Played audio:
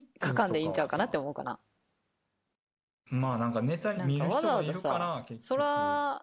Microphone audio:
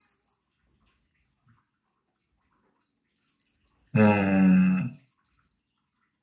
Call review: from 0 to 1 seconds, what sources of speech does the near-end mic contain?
neither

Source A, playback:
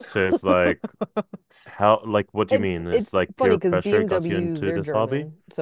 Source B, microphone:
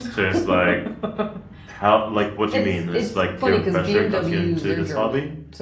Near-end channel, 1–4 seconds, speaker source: echo only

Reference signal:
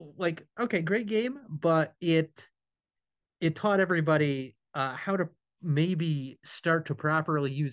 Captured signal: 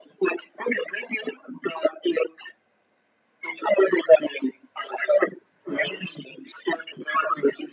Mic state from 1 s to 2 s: echo only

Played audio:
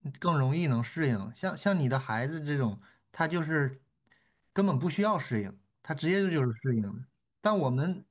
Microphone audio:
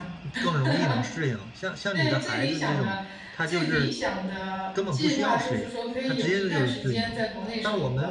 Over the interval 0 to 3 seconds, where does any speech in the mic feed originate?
both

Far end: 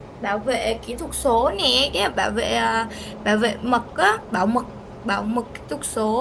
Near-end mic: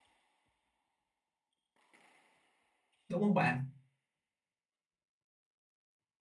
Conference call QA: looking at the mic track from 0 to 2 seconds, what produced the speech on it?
neither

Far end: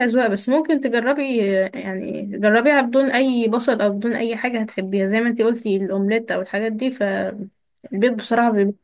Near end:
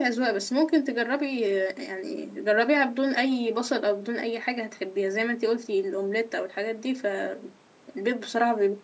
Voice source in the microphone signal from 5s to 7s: echo only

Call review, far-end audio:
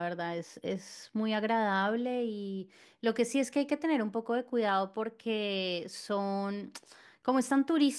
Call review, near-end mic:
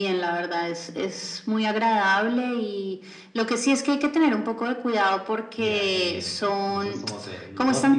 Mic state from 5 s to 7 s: both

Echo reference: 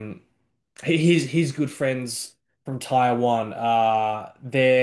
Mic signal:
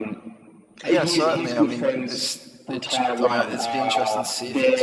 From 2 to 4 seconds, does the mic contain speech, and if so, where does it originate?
both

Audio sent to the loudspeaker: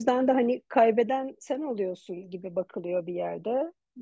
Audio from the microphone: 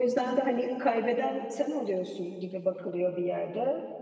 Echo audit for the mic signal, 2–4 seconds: echo only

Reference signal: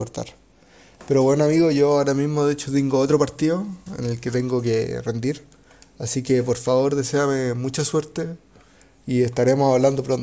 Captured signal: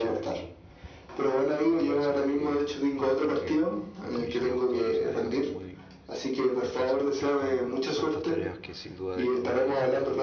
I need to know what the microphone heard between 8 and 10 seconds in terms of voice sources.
both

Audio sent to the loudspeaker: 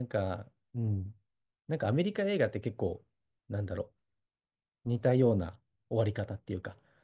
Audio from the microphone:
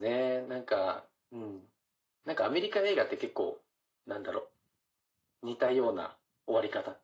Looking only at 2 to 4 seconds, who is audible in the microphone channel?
echo only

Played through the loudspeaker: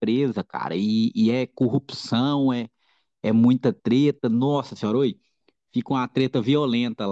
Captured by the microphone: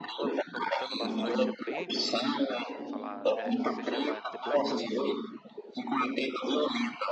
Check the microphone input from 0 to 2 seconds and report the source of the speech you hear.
both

